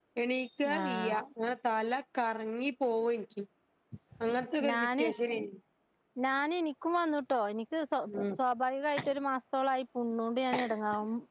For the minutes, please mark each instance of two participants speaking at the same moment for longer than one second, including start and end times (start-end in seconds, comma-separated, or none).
none